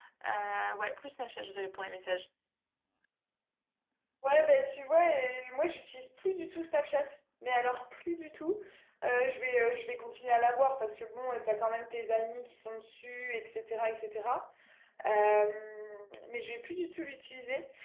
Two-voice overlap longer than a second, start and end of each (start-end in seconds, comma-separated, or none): none